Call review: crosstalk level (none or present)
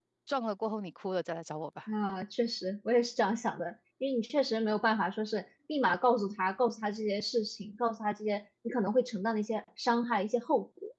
none